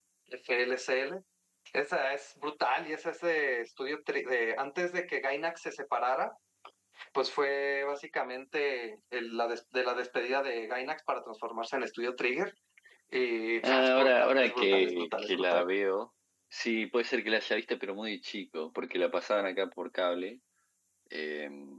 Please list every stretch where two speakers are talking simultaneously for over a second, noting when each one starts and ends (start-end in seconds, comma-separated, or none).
13.6-15.6